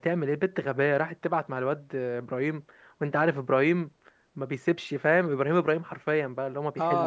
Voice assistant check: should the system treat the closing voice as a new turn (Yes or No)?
Yes